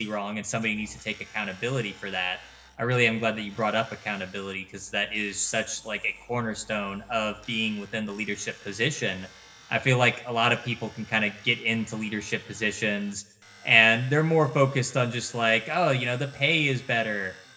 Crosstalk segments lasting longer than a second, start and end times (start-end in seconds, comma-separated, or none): none